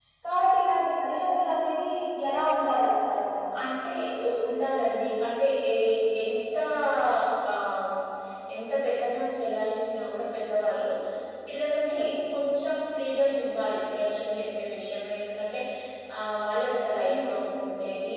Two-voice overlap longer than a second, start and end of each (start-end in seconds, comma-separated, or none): none